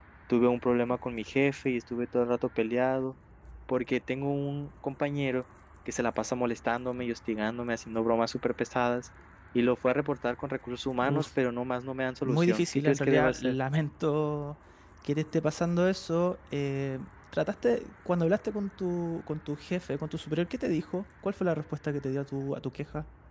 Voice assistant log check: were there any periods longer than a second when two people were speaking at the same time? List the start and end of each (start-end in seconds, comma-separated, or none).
12.2-13.5